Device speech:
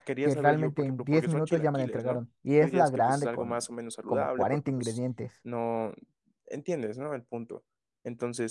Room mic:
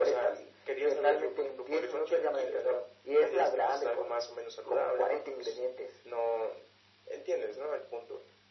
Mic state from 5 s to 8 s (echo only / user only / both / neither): echo only